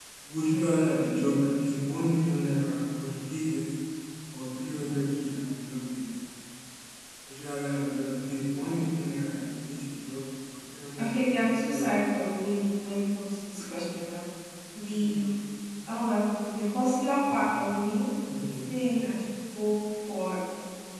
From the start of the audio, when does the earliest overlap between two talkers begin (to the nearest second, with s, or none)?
11 s